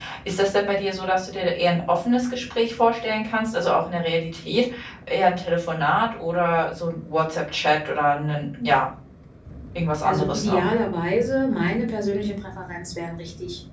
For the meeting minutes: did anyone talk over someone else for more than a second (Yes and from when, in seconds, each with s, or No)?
No